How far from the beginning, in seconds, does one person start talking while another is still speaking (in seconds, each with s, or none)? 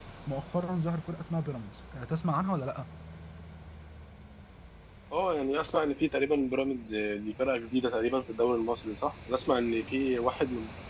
none